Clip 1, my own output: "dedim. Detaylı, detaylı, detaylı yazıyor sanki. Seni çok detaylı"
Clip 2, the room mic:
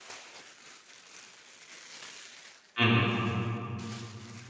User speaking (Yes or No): Yes